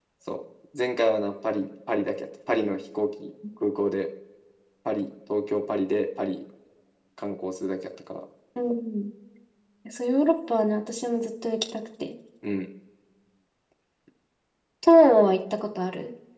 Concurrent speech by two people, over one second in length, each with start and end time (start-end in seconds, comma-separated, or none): none